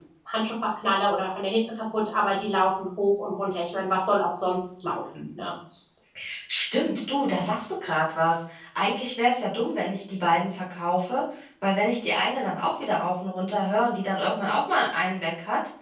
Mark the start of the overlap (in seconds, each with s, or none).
none